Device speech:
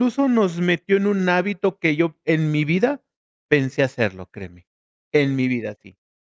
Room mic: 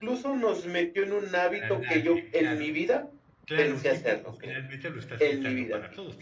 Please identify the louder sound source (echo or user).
echo